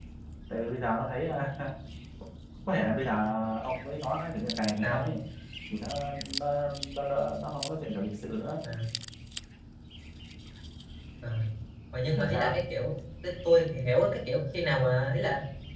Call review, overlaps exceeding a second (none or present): none